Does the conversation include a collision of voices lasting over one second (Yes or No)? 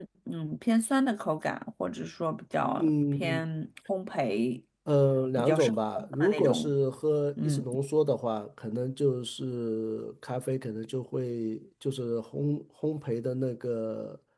Yes